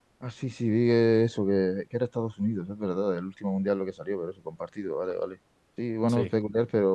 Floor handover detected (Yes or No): No